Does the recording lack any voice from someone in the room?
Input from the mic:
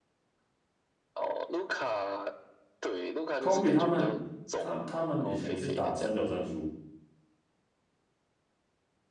No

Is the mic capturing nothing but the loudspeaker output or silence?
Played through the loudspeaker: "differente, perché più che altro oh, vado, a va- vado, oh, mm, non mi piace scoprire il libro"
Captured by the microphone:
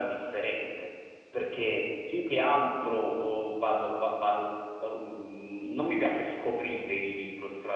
Yes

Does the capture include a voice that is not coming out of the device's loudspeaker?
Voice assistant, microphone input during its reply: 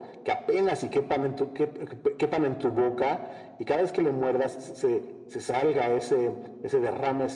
No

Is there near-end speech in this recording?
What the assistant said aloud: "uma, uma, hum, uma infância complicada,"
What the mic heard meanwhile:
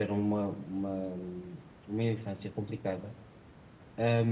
No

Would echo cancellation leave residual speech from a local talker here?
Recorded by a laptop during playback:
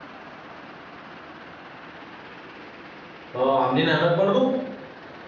Yes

